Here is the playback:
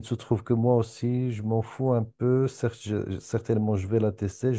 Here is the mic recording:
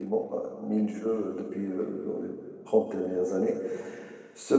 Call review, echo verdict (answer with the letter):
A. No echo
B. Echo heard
A